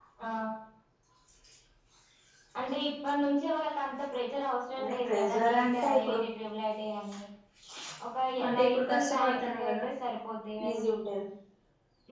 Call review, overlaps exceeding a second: present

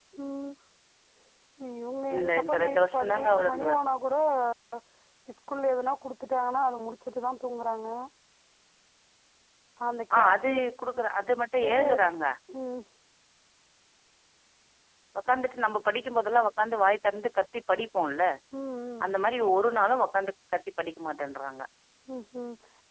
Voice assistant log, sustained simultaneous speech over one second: present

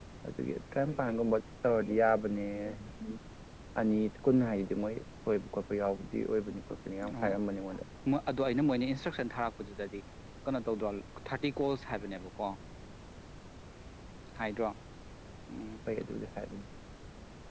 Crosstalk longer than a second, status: none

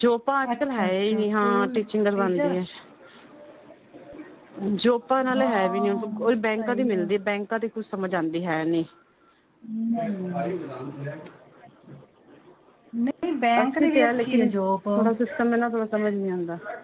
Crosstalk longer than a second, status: present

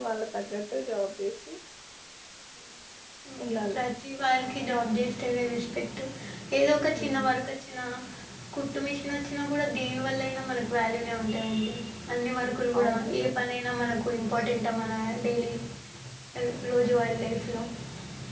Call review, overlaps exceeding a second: none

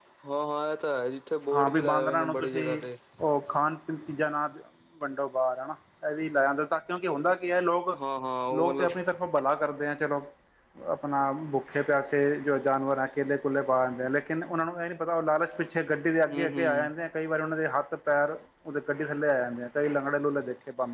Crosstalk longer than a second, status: present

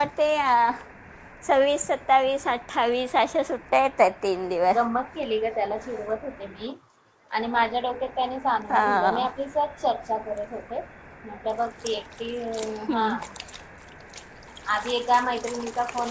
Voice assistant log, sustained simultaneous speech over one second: none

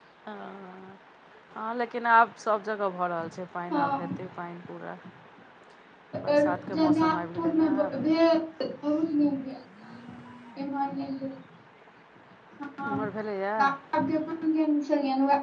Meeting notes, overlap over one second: present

